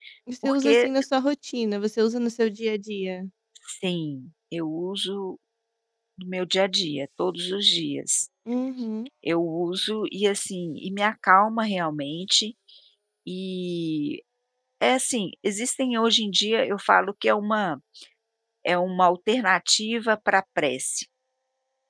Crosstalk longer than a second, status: none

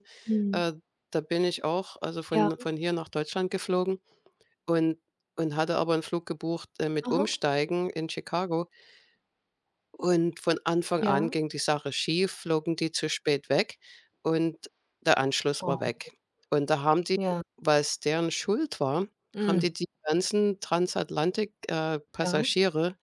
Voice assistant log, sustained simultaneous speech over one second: none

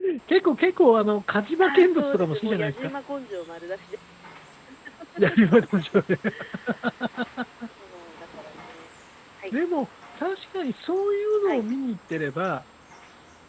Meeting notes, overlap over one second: present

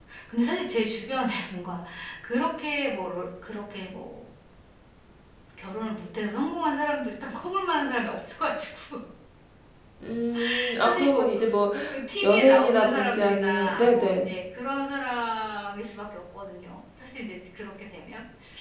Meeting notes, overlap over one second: present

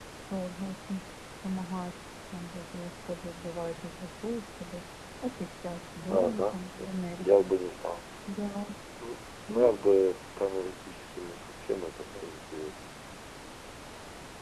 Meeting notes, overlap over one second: present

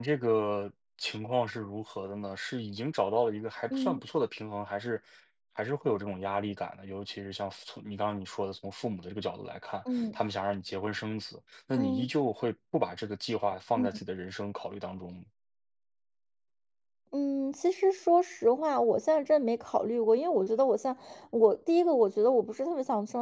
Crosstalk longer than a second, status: none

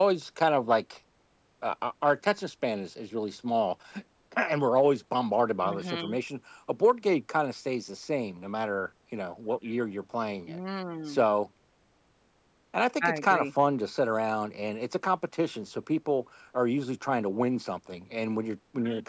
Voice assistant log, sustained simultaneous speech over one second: none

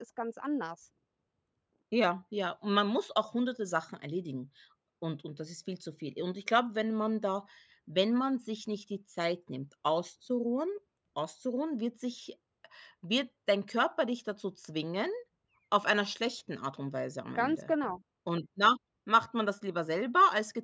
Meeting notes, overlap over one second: none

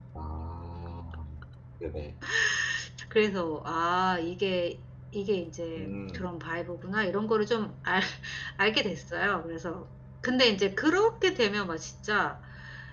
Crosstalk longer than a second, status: none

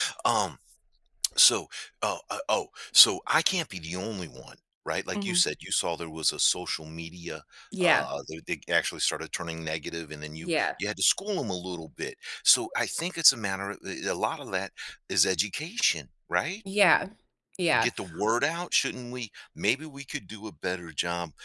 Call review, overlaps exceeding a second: none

